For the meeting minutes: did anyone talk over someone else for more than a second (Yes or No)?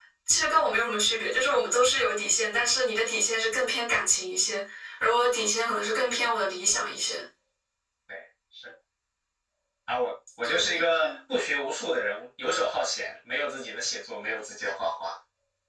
No